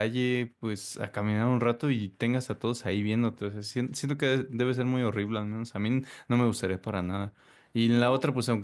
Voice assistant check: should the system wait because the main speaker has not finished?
Yes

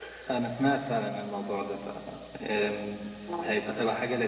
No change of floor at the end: Yes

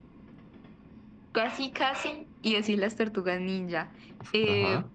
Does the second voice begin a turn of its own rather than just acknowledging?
No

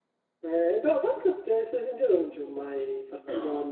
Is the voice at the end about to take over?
No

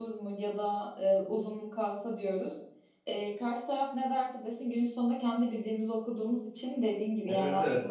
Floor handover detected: Yes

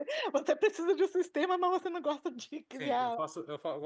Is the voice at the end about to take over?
Yes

